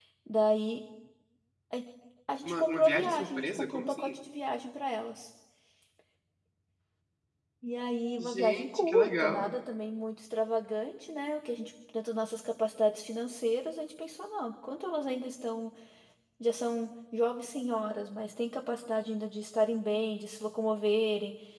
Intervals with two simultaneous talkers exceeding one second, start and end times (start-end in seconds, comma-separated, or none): 2.4-4.1, 8.2-9.5